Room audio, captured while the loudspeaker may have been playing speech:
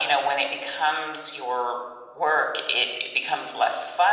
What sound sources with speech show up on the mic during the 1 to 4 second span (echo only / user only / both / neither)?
echo only